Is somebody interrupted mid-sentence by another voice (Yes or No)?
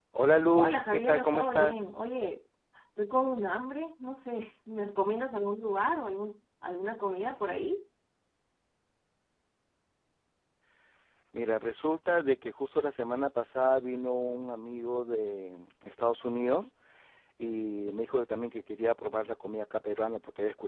Yes